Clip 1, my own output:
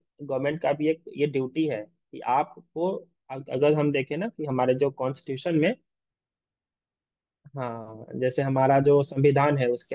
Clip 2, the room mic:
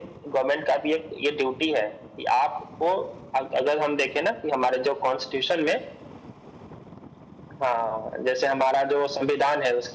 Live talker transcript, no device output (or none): none